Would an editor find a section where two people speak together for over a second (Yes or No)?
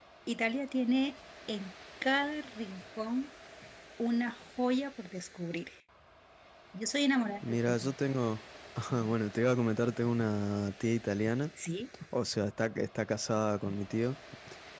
No